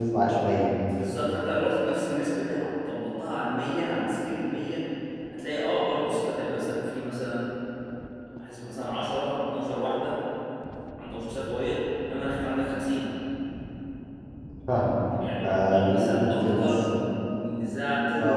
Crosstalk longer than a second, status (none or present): present